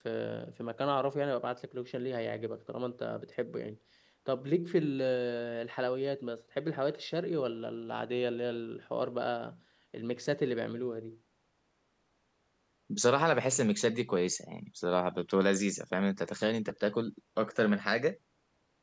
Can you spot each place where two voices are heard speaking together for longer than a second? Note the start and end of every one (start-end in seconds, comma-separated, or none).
none